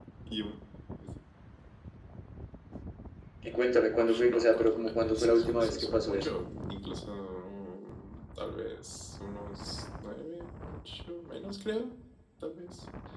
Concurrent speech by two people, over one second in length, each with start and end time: 4.0-6.3

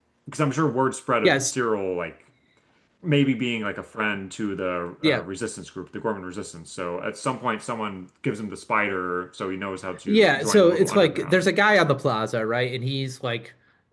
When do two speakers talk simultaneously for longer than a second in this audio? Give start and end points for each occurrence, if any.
10.1-11.5

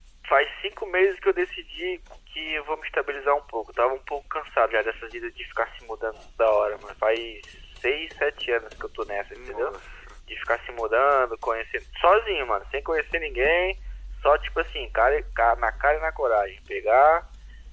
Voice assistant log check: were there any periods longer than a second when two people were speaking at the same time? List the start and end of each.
none

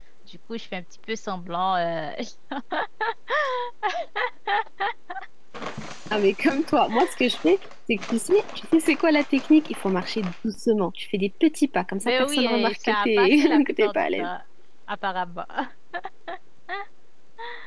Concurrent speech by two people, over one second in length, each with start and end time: 12.0-14.3

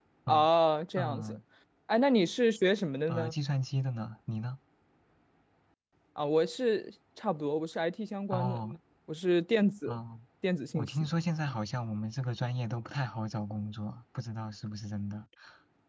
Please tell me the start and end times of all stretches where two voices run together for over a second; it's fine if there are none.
none

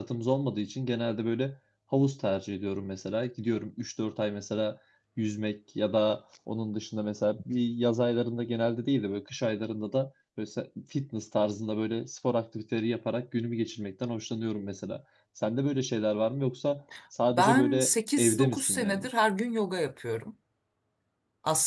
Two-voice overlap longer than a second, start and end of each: 17.3-19.1

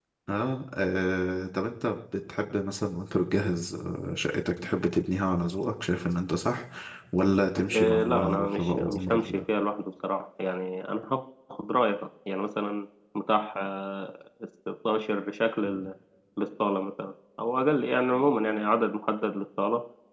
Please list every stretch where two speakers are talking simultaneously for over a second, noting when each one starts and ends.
7.7-9.4

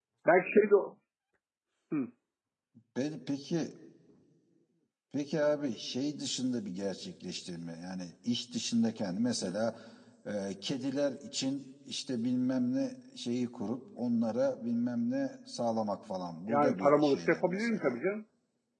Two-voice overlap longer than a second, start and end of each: 16.5-17.9

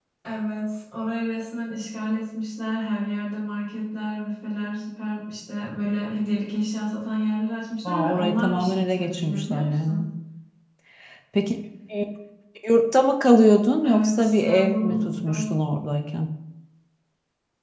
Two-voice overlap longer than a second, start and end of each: 7.8-10.0, 13.8-15.4

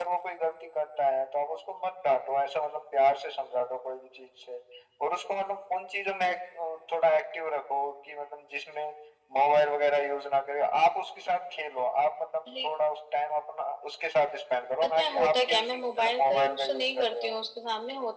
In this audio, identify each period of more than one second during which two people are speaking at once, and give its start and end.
14.8-17.4

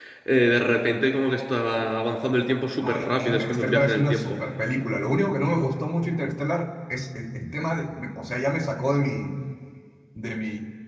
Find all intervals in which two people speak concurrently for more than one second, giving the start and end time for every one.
2.8-4.4

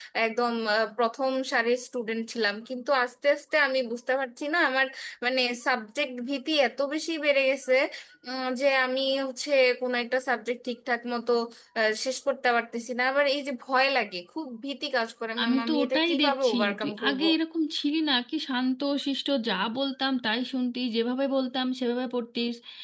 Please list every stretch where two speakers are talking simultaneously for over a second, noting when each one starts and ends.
15.4-17.2

